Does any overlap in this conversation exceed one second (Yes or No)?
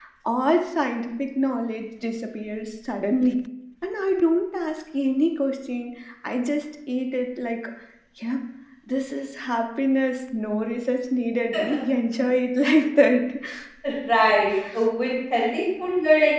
No